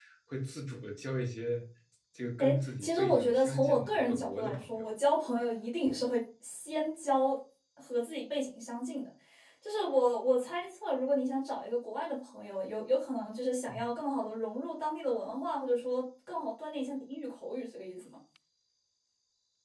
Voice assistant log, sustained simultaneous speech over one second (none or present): present